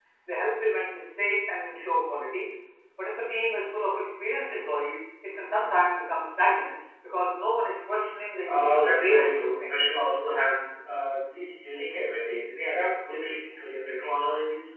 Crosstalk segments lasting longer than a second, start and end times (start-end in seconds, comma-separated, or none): 8.4-9.8